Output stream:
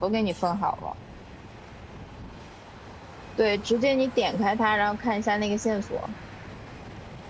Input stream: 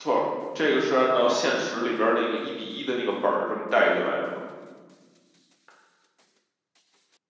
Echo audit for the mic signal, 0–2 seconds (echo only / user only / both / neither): user only